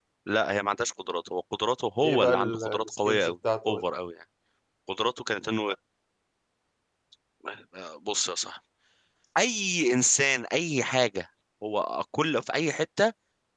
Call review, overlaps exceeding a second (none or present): present